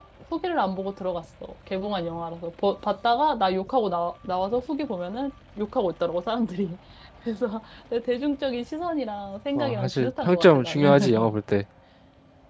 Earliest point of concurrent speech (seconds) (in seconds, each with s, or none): 9.6 s